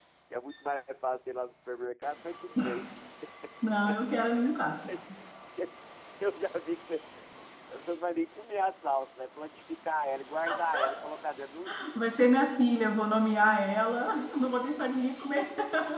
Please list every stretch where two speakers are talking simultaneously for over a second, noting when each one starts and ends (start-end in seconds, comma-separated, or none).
none